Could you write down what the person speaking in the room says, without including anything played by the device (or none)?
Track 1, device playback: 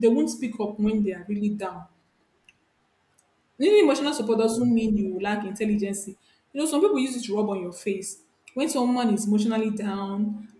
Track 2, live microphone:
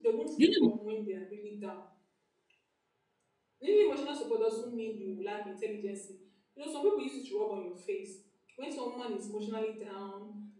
You know